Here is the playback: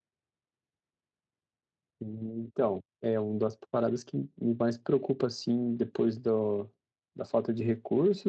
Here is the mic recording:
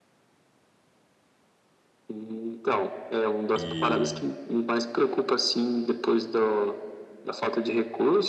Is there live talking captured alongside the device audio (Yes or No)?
Yes